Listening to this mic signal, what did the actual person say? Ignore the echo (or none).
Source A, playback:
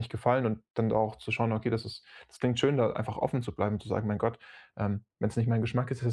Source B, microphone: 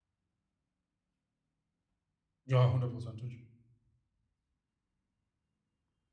Ja, hundertprozentig.